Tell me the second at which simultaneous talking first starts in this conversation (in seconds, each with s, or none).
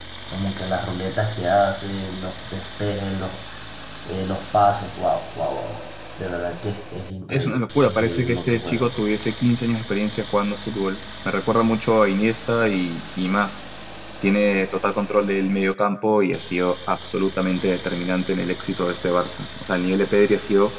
7.3 s